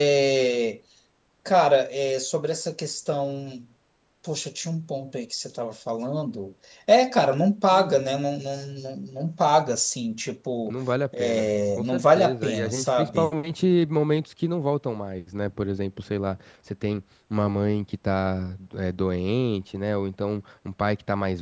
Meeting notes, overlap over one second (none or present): present